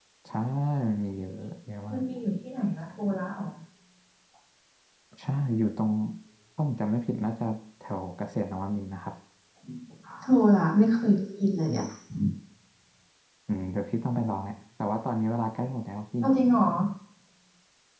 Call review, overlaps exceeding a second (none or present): none